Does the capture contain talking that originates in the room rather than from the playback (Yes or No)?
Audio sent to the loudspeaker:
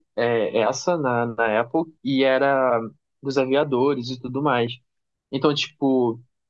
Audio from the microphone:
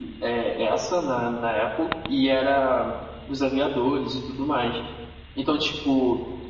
No